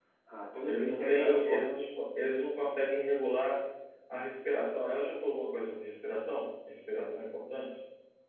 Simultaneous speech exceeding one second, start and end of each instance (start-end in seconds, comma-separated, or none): 0.6-1.9